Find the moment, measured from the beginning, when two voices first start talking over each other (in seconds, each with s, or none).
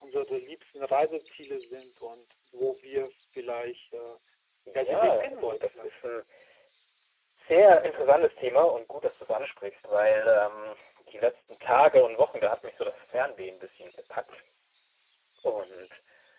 4.7 s